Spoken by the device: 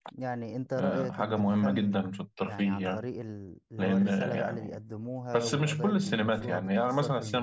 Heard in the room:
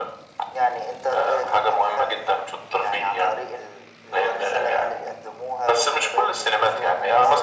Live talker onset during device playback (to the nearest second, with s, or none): none